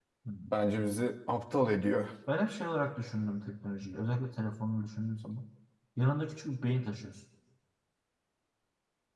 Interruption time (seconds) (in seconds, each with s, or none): none